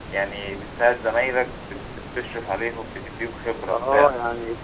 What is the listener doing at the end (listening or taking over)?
taking over